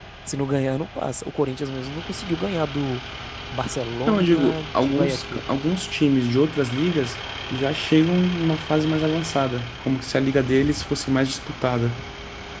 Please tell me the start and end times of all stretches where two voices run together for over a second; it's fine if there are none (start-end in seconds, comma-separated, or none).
4.1-5.4